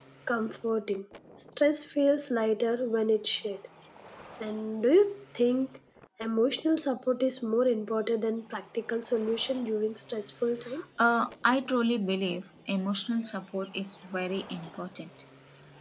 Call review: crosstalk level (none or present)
none